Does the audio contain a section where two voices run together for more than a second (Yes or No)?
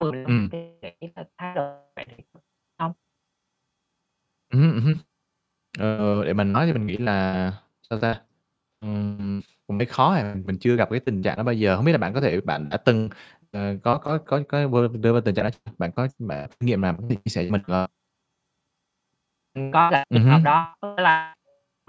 No